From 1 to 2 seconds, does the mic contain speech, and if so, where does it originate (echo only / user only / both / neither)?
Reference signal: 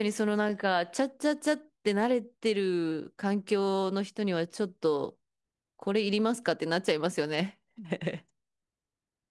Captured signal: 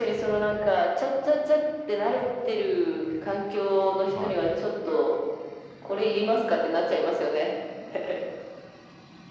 echo only